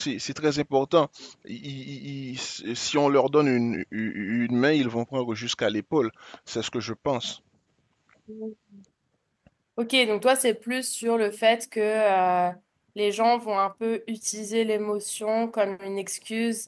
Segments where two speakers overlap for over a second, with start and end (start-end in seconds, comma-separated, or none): none